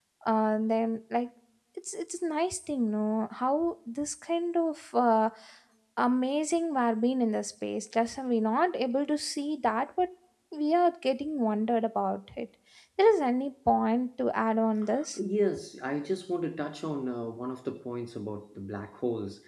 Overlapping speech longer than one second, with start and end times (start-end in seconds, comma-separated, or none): none